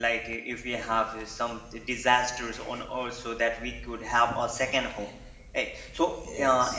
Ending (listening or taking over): listening